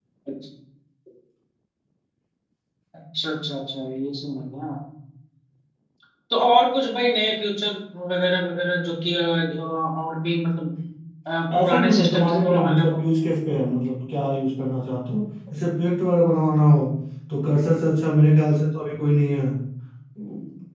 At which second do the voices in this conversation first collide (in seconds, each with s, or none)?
11.6 s